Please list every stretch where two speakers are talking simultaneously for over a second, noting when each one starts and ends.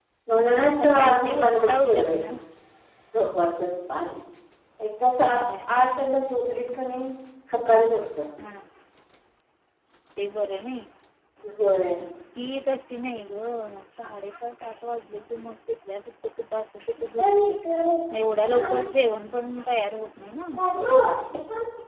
0.6-2.1

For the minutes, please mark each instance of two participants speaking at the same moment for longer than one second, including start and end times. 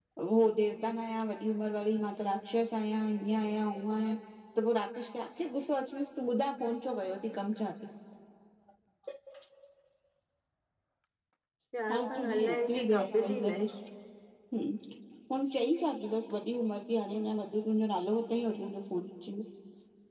11.9-13.6

